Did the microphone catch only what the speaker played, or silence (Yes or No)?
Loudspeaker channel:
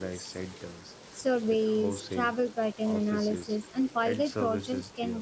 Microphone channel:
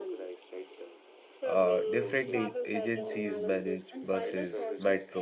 No